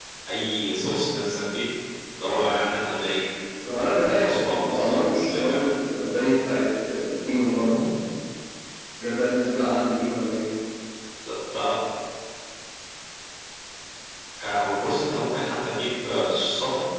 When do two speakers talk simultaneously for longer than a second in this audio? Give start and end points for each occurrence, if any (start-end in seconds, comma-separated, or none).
4.2-5.7